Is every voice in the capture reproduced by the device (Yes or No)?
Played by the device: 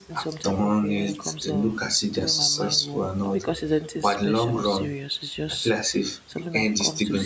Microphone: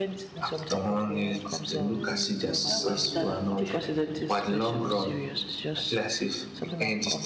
No